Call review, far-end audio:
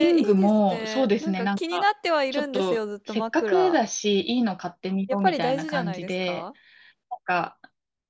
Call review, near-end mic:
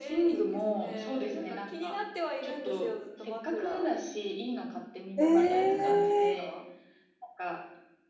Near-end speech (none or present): present